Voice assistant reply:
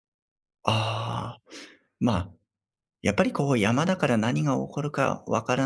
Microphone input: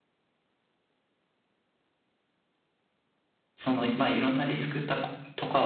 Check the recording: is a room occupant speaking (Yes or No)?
Yes